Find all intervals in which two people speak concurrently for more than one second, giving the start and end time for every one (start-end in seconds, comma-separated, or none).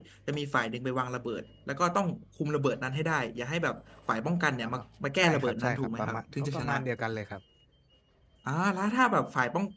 5.2-6.7